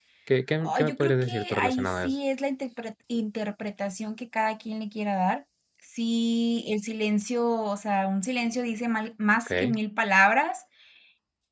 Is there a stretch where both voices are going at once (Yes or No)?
Yes